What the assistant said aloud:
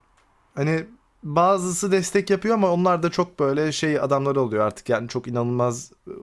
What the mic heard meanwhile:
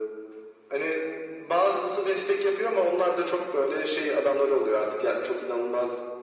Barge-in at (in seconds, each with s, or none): none